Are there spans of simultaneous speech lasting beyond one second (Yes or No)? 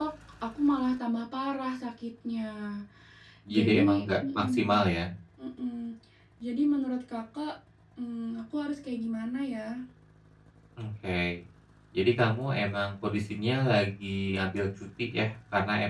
Yes